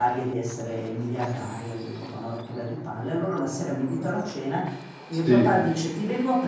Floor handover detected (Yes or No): No